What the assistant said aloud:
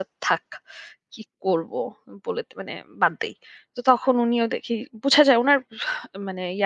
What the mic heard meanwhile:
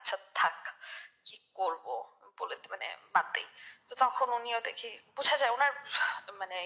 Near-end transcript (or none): none